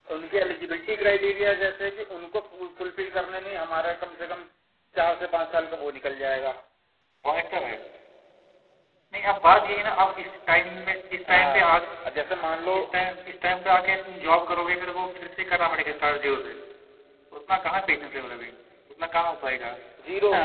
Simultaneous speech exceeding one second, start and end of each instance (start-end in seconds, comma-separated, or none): none